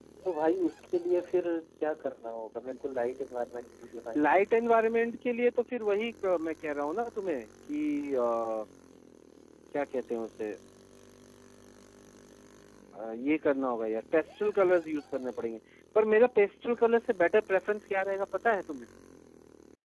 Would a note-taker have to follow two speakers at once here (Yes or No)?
No